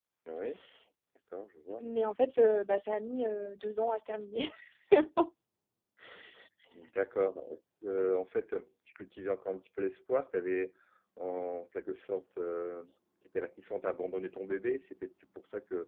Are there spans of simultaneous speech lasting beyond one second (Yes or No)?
No